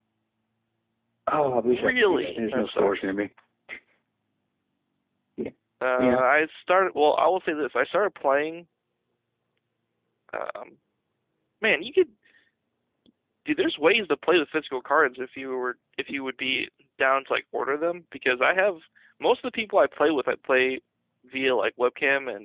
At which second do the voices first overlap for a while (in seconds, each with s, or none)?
1.7 s